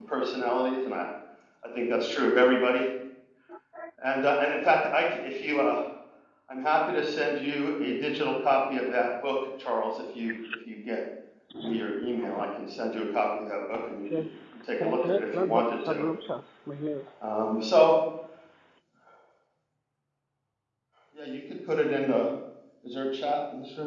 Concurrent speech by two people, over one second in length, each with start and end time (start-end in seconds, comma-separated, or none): 14.8-16.0